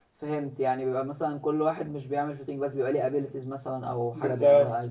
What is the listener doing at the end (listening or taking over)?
taking over